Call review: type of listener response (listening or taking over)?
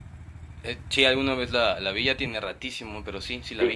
taking over